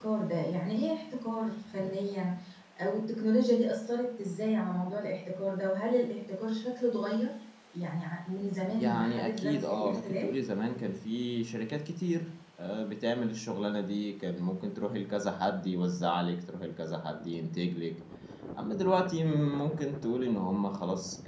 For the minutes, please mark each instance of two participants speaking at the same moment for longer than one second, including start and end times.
8.7-10.3

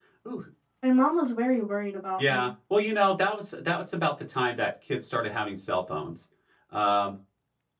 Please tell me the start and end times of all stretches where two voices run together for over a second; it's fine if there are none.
none

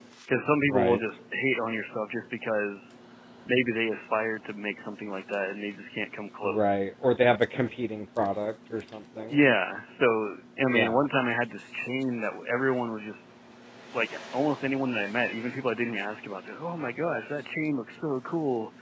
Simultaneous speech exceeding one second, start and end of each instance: none

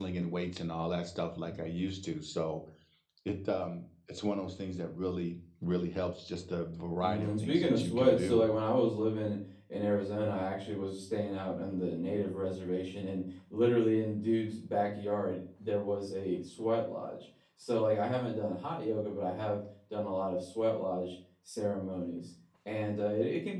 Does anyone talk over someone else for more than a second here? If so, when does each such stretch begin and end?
7.0-8.4

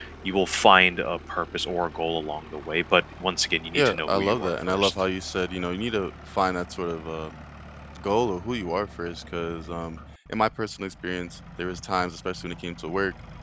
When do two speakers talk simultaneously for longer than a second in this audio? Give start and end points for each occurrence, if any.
3.7-4.9

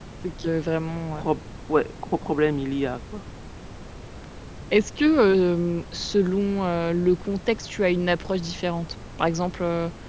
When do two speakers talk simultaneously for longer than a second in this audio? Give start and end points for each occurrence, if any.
none

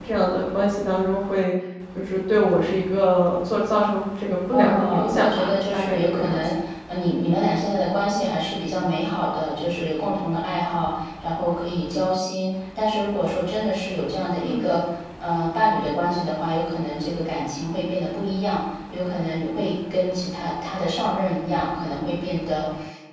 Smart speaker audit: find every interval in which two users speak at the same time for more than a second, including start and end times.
4.5-6.4

